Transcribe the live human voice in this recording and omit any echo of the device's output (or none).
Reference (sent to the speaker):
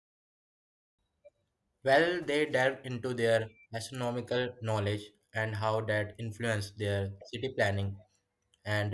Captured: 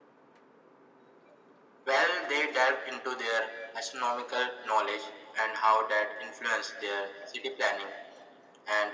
none